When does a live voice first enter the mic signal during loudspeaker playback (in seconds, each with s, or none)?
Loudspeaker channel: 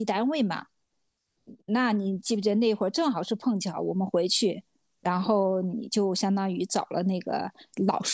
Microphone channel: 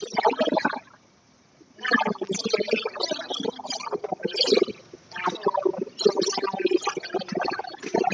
none